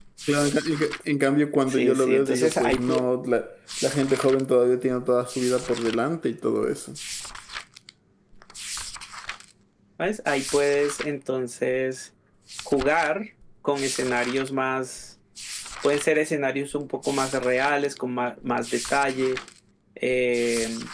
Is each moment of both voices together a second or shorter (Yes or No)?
No